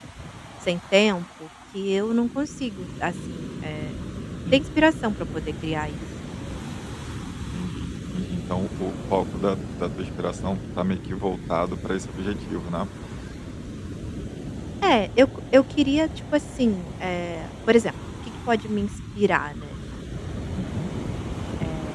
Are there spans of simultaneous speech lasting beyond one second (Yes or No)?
No